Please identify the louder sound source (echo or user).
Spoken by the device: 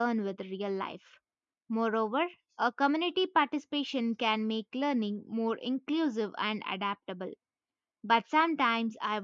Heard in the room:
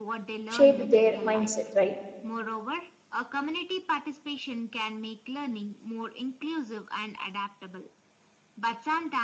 user